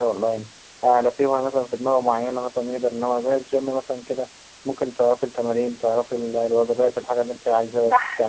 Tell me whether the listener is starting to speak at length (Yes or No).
Yes